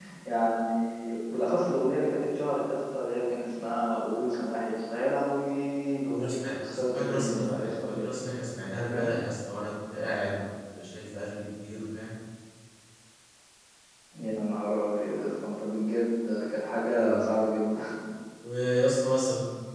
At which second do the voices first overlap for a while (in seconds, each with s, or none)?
6.2 s